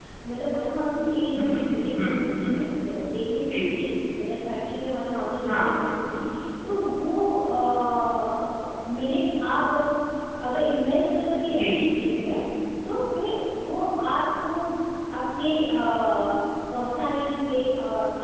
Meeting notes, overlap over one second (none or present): present